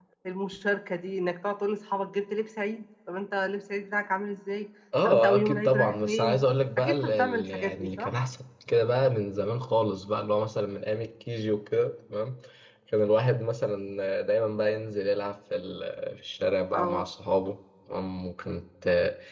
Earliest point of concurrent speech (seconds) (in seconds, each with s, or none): 5.0 s